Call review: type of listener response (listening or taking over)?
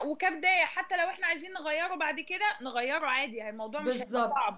taking over